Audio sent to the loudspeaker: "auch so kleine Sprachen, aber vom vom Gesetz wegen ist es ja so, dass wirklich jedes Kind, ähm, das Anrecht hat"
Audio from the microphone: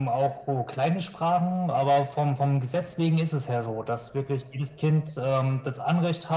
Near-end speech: none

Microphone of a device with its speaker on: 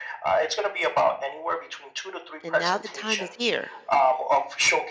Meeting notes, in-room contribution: present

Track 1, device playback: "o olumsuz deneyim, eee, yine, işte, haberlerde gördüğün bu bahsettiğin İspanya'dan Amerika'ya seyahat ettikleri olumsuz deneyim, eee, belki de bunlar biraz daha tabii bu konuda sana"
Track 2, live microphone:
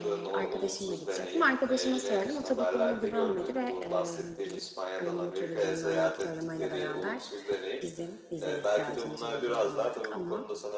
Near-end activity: present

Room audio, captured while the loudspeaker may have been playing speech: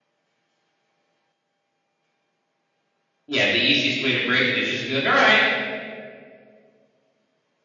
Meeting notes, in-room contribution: present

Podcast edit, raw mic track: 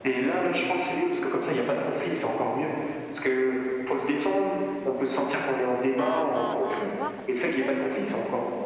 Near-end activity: present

